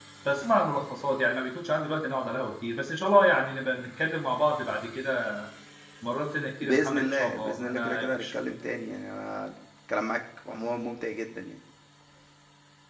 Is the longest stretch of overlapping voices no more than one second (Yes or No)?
No